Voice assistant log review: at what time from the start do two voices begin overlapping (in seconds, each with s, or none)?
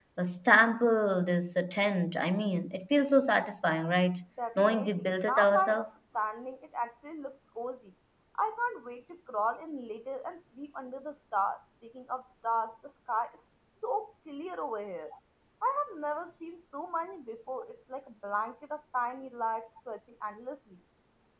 4.6 s